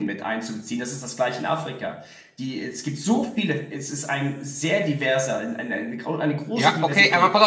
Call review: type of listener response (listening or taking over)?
taking over